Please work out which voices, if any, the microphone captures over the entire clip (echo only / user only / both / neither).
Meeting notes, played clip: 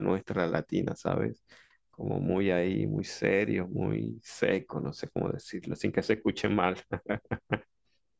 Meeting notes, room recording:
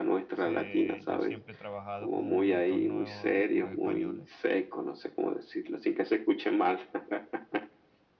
both